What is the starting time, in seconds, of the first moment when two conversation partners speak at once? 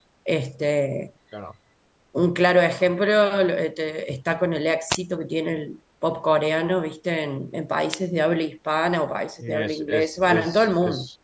9.4 s

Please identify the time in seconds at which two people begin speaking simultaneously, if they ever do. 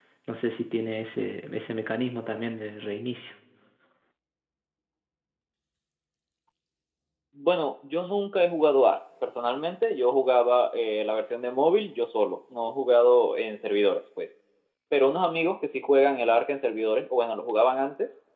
none

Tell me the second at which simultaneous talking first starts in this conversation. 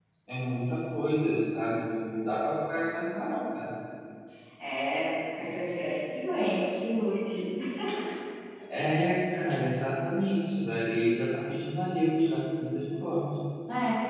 none

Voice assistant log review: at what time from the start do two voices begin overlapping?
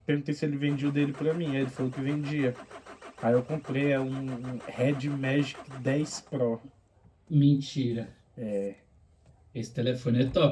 none

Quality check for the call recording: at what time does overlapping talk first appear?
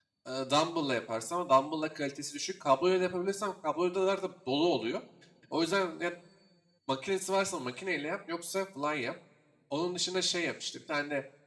none

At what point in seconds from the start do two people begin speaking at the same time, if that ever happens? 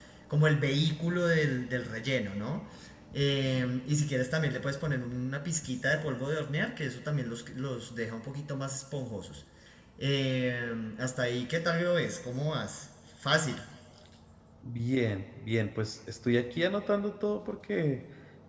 none

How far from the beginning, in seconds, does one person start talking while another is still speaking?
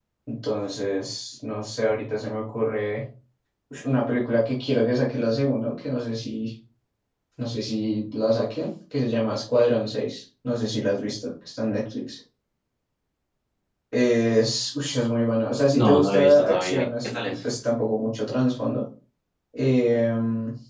15.7 s

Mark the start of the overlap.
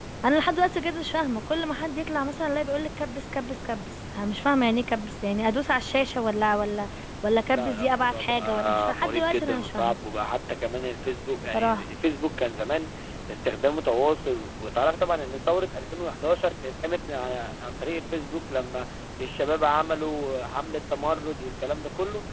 7.5 s

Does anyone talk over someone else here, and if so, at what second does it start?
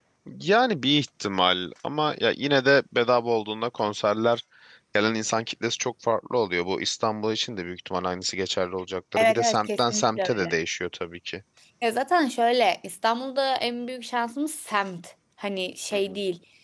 9.2 s

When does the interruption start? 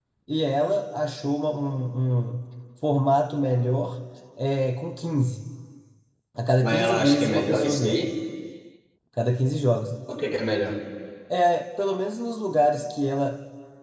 6.6 s

